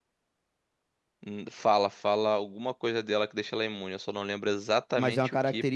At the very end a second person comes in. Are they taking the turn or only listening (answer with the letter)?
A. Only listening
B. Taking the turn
B